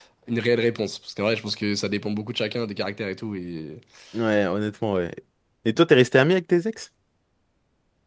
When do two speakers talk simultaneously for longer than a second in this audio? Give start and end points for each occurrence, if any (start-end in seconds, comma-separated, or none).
none